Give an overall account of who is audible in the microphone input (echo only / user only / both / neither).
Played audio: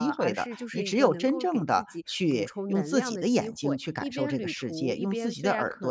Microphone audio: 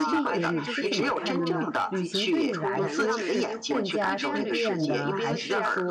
both